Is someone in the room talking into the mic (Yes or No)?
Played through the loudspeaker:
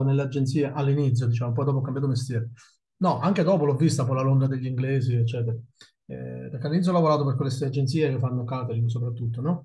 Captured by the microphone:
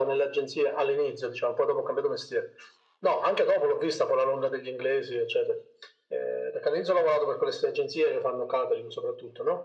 No